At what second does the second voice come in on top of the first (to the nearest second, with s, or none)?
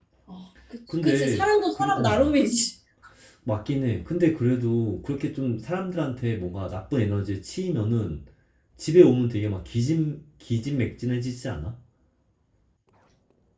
1 s